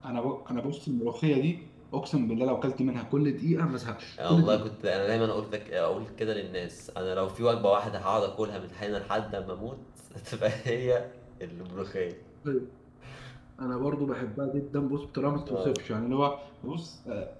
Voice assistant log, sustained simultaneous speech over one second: none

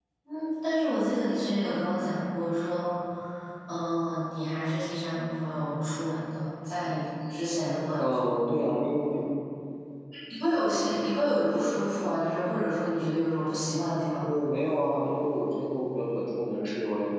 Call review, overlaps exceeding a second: none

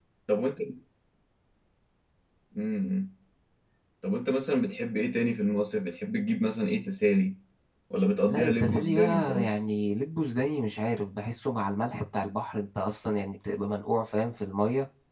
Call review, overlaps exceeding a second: present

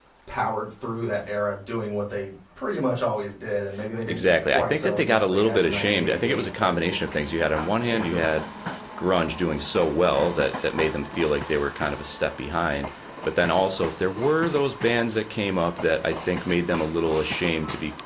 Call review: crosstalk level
present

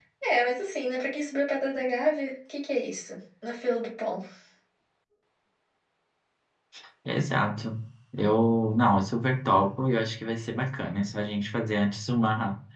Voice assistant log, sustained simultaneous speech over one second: none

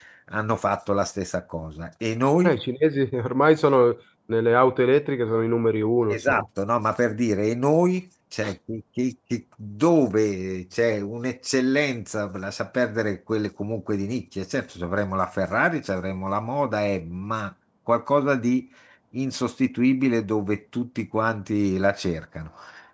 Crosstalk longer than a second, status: none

